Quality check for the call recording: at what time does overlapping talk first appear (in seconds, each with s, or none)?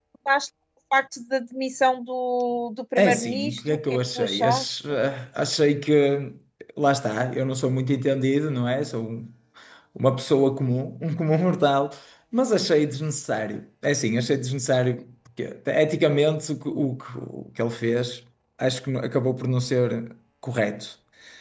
3.0 s